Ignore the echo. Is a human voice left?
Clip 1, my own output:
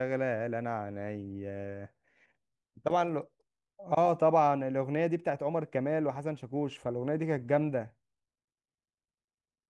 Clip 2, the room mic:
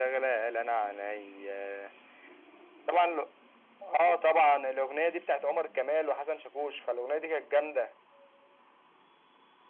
No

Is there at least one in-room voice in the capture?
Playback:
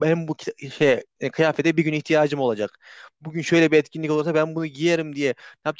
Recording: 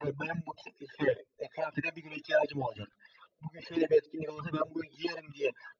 No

